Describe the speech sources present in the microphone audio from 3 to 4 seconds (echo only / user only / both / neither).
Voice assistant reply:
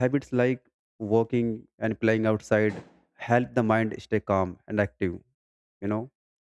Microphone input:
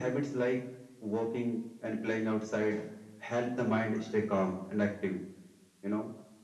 echo only